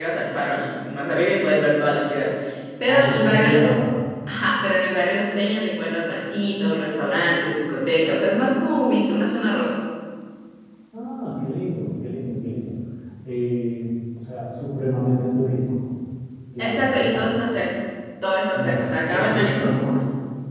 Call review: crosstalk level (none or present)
present